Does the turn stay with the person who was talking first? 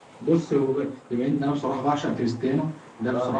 Yes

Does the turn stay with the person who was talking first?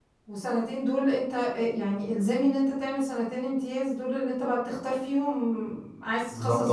No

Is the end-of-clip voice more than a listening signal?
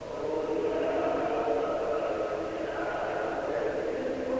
Yes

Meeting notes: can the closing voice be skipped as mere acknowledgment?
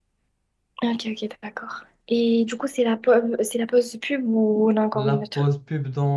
No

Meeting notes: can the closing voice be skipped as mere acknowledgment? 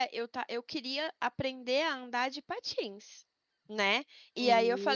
Yes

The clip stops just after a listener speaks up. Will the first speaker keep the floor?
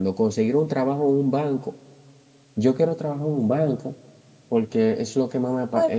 No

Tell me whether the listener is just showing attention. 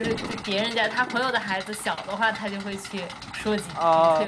No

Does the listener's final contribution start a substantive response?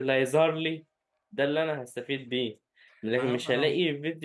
No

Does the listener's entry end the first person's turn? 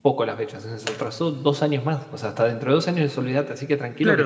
Yes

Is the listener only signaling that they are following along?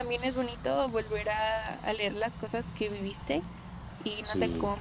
Yes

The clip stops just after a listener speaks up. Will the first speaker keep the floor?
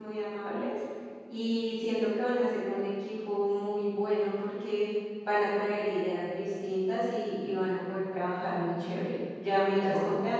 Yes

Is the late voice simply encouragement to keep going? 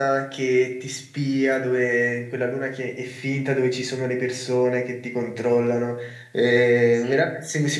Yes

